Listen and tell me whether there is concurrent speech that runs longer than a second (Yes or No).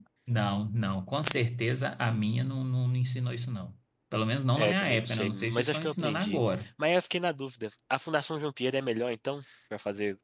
Yes